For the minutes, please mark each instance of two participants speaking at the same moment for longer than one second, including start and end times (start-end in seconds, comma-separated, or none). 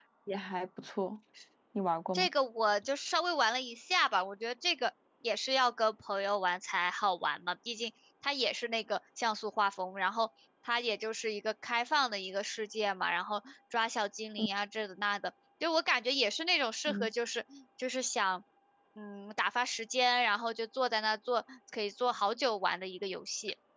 none